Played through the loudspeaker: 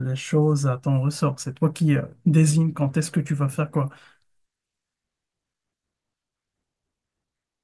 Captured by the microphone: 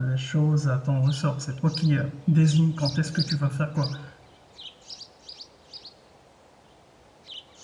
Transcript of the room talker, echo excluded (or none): none